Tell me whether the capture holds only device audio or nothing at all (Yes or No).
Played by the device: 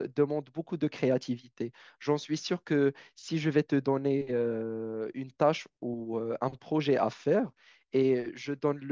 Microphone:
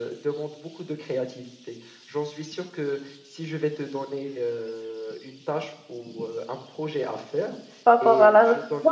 No